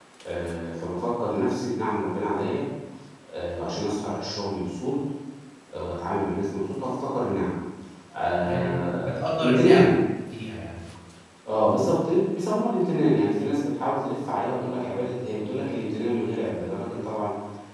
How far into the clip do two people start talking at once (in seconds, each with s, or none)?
8.4 s